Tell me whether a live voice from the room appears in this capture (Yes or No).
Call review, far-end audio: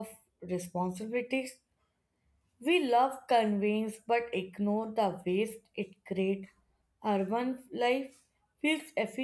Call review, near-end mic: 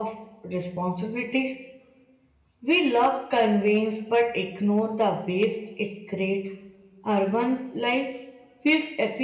No